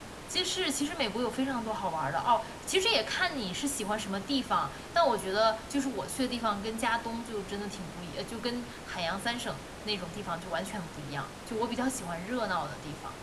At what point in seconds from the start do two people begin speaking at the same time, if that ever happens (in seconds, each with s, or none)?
none